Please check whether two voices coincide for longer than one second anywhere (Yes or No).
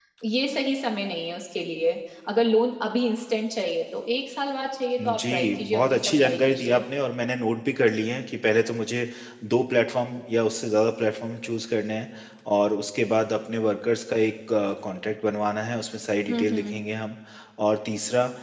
Yes